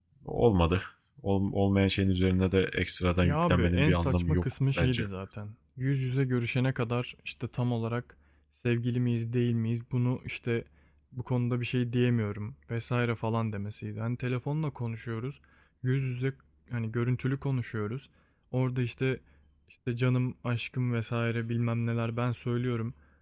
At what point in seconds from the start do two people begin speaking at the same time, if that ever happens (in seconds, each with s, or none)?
3.2 s